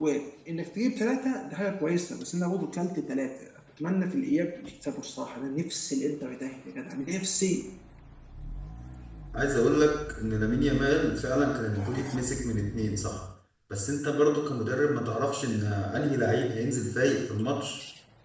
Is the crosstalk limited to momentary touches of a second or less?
Yes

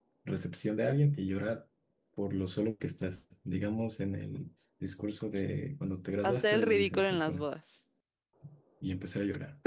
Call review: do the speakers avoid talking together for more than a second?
No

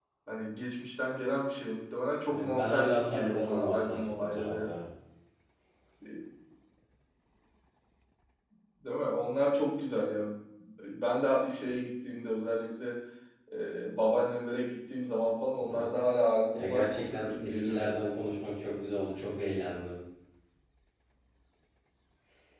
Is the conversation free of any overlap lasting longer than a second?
No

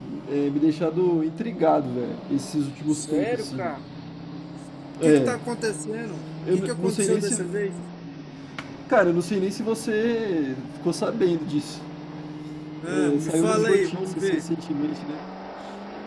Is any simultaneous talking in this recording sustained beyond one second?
Yes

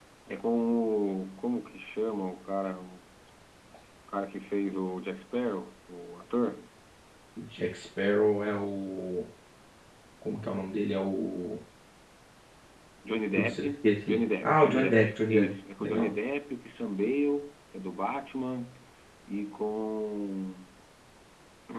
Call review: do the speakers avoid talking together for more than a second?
No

